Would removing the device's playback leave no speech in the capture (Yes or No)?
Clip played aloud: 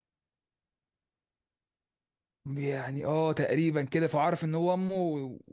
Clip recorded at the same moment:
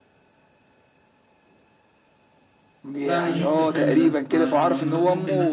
No